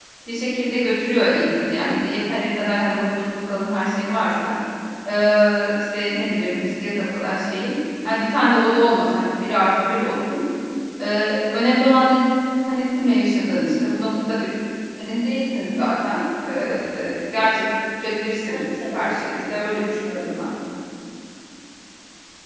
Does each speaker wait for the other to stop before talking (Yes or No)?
No